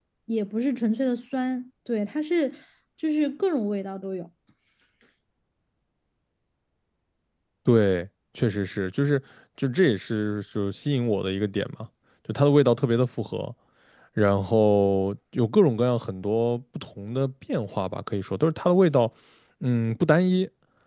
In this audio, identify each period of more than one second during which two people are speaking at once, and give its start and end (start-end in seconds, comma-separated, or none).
none